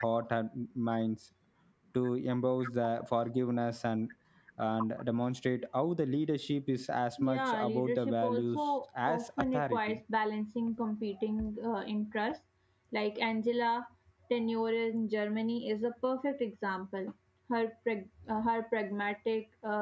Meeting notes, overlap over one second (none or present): present